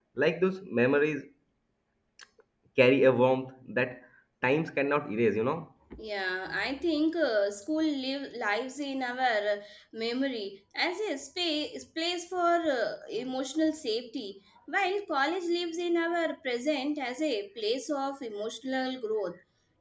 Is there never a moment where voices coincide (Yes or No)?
Yes